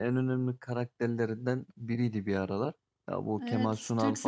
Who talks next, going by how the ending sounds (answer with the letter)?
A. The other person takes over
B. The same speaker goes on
A